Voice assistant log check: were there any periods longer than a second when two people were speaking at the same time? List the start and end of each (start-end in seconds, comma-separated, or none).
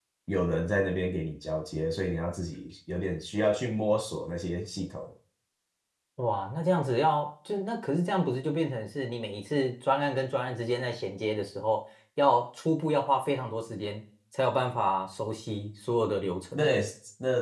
none